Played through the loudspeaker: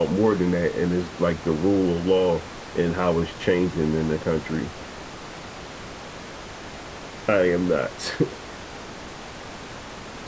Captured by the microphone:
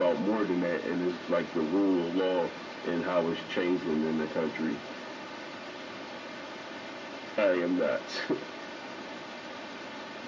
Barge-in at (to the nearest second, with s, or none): none